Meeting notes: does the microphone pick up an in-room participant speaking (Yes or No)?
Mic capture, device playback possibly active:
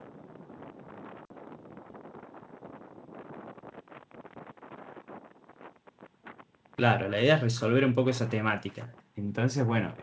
Yes